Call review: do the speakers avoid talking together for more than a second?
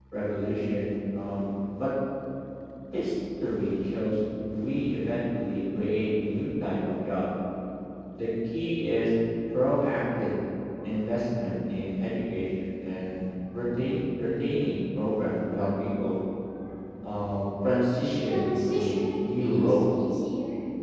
No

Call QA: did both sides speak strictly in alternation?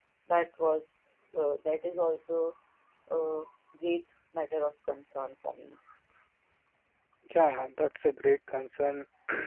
Yes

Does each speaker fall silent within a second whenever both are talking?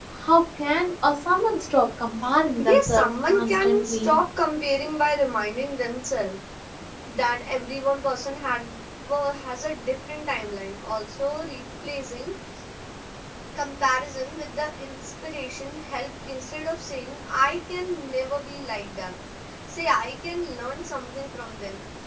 No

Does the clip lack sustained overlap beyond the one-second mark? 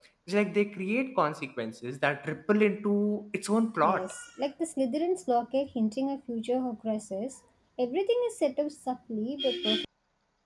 Yes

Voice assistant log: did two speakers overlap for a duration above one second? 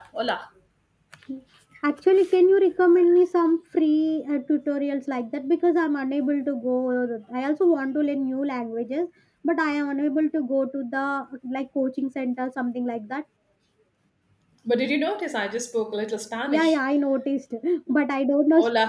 No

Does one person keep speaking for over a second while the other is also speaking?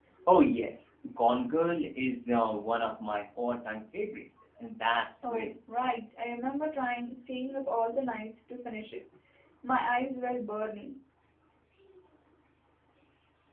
No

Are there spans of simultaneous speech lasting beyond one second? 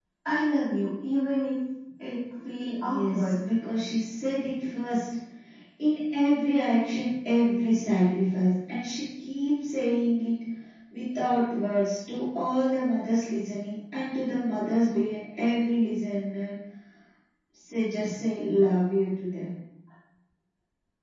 No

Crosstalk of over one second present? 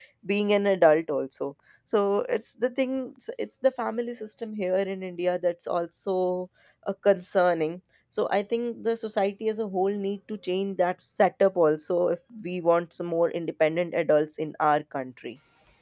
No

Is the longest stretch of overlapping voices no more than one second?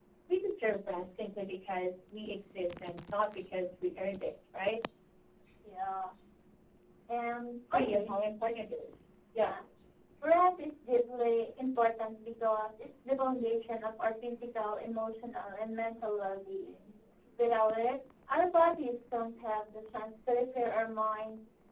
Yes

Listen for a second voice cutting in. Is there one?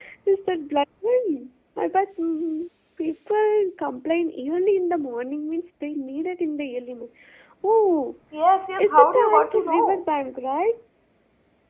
Yes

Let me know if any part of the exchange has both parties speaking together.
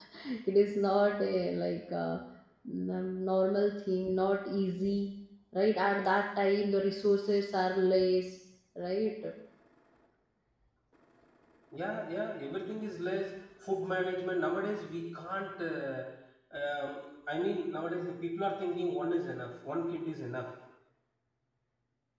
No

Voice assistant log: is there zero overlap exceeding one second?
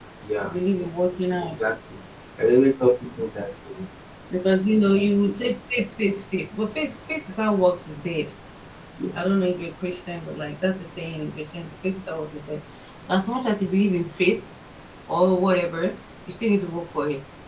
Yes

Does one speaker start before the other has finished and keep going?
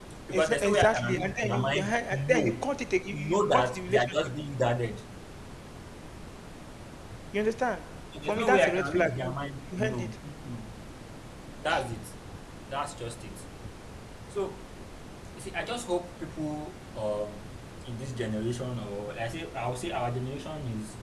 Yes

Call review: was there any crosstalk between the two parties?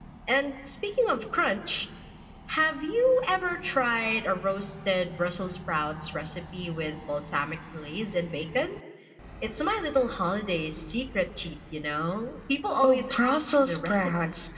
Yes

